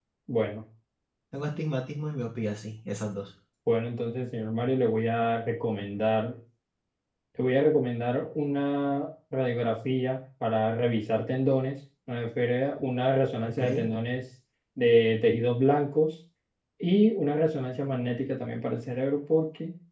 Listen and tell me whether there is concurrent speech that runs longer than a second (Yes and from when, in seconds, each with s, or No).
No